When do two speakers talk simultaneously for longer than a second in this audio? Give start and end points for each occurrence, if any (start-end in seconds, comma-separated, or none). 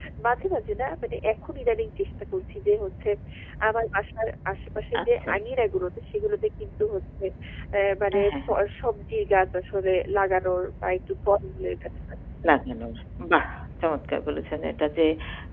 none